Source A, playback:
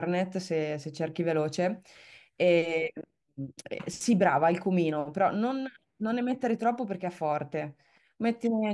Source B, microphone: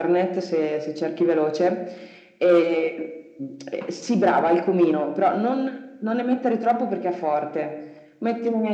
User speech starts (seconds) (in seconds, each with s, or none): none